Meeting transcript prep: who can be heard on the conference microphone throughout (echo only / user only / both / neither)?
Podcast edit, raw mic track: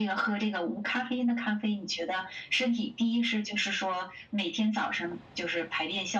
echo only